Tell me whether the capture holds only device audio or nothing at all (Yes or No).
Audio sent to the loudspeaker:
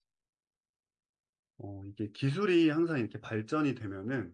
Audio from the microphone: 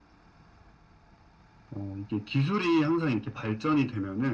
Yes